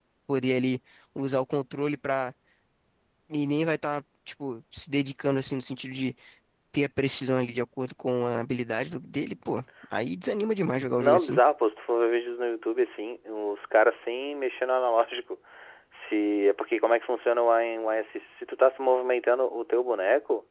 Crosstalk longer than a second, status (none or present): none